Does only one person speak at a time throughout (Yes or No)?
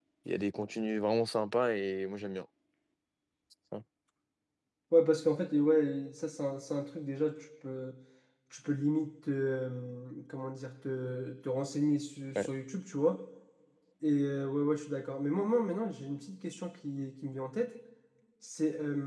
Yes